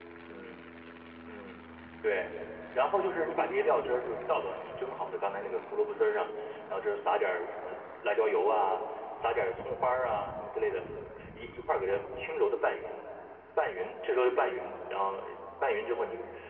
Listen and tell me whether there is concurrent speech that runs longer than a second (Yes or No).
No